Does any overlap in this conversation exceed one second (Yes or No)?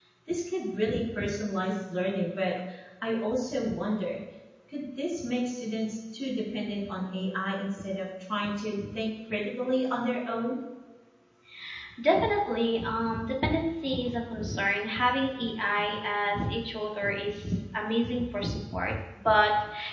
No